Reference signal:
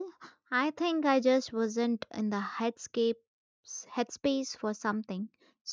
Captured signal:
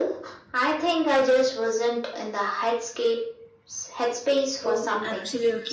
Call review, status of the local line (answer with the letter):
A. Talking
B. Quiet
A